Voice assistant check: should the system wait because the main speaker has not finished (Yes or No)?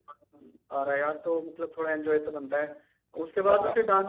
Yes